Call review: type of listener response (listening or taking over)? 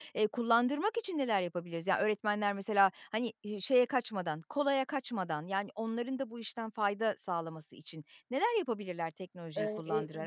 taking over